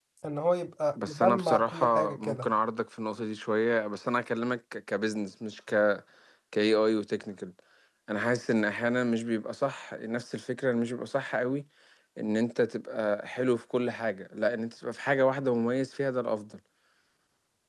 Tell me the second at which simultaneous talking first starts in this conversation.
1.1 s

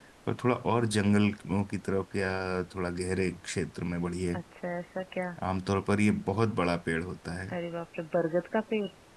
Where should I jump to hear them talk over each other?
none

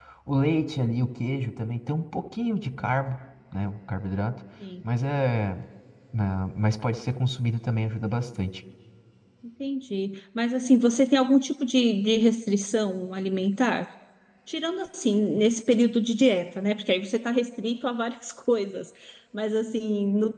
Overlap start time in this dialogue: none

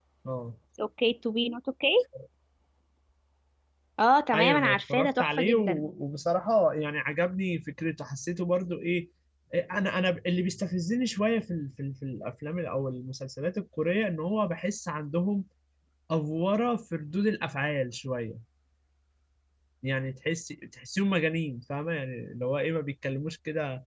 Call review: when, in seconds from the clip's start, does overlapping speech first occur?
4.3 s

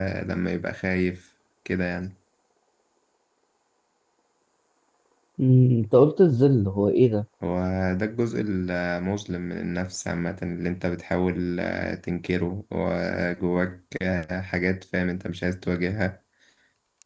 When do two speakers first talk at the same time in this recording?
none

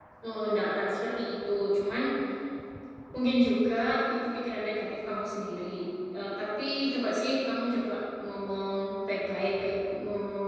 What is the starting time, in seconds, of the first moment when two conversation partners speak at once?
none

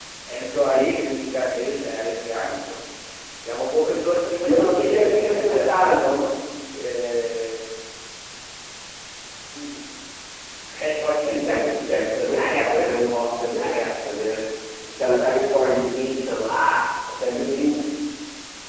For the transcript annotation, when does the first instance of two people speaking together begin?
4.4 s

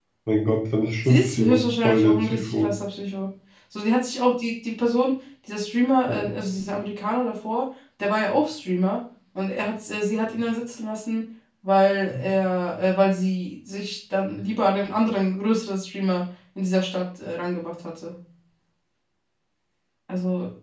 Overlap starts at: 1.1 s

